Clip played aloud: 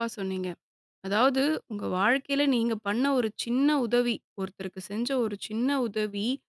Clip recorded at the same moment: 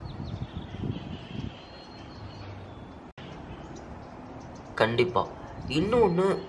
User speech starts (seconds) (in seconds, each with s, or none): 4.8 s